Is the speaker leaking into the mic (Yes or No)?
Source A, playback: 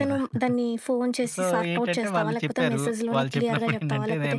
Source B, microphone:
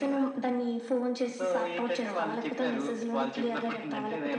Yes